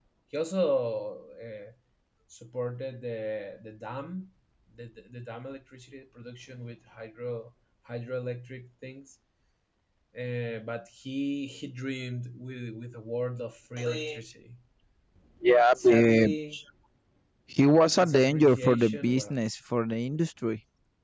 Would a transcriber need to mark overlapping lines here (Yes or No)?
Yes